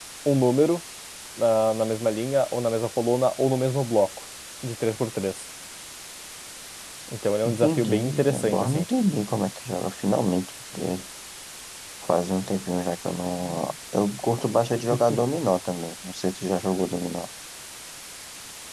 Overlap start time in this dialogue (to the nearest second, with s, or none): 7 s